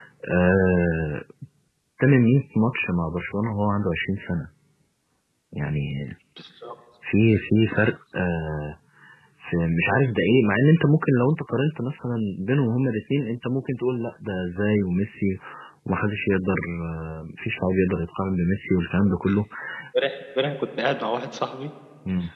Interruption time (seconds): none

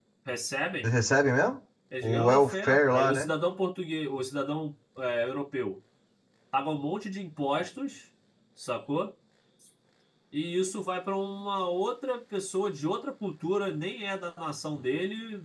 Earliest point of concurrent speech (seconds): 2.0 s

